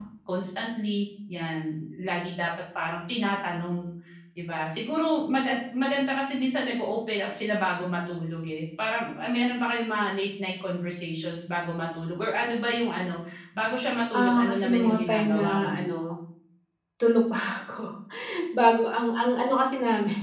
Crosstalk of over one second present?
Yes, from 14.1 s

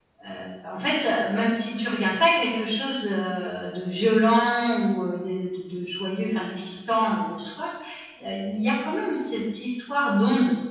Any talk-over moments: No

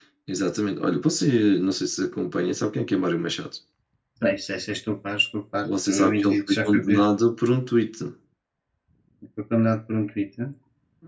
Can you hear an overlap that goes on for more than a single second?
Yes, from 5.6 s

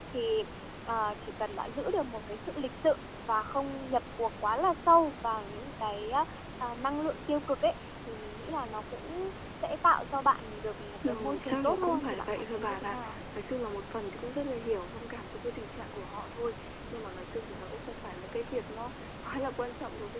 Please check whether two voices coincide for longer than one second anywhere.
Yes, from 11.0 s

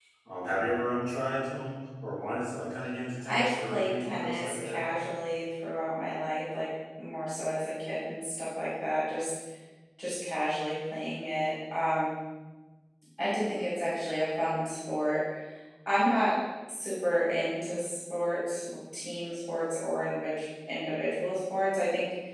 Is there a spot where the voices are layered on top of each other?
Yes, from 3.2 s

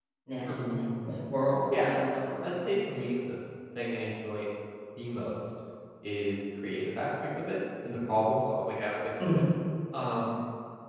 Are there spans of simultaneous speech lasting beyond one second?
No

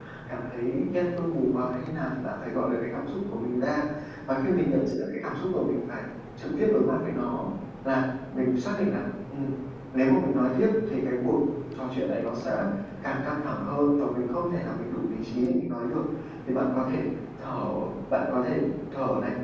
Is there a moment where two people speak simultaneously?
No

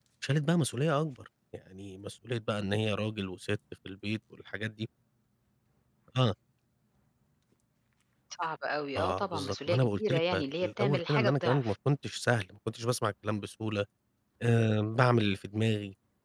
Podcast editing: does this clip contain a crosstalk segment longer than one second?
Yes, from 9.0 s

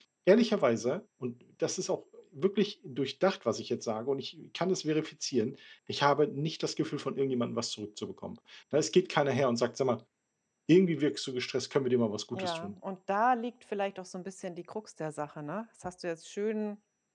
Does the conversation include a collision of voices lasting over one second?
No

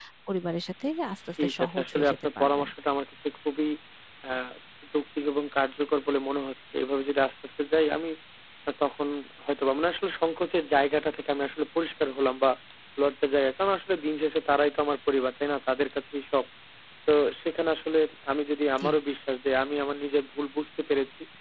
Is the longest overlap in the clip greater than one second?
Yes, from 1.4 s

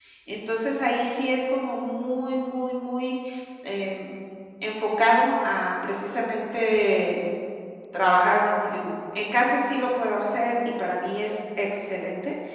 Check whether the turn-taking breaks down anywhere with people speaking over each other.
No

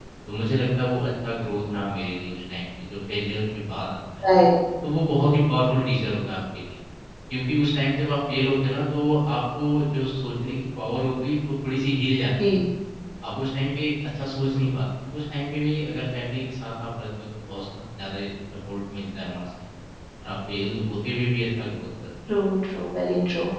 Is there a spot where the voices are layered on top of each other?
No

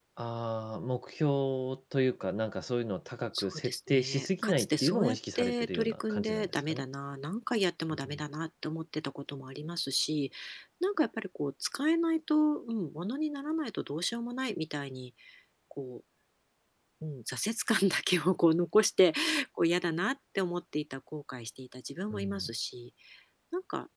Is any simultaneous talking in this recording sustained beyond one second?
Yes, from 3.4 s

